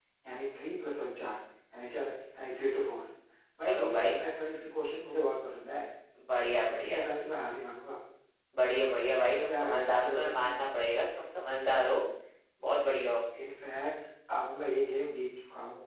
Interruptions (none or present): present